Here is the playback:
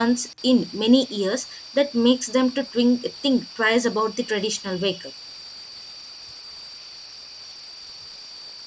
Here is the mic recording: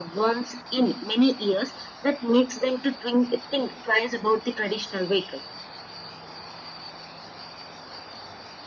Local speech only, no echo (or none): none